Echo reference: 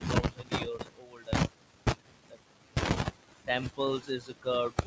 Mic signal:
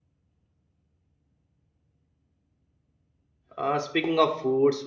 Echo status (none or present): none